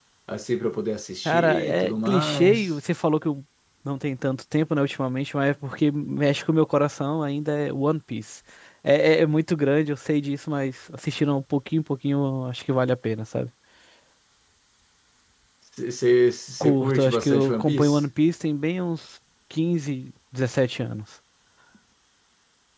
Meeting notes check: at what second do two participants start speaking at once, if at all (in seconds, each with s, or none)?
1.2 s